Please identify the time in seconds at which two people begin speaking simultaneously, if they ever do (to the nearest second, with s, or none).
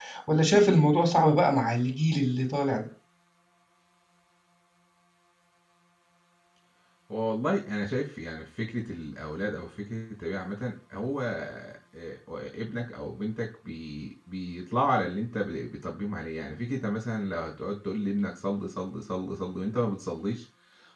none